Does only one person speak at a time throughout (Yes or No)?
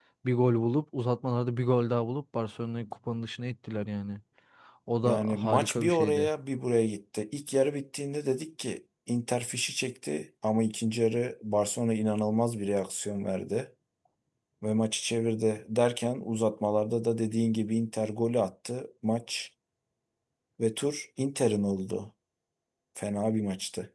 No